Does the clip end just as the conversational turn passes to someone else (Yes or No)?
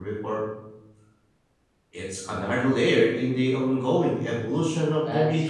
Yes